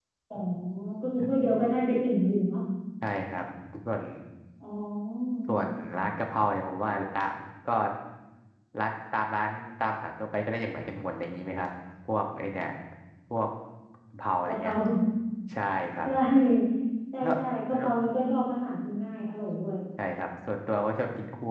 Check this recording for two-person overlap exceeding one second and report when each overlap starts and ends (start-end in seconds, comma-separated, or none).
none